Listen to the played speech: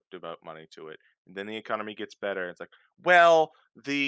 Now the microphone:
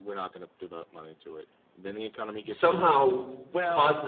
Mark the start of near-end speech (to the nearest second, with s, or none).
2 s